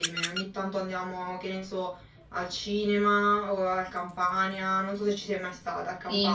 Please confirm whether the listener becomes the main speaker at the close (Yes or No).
Yes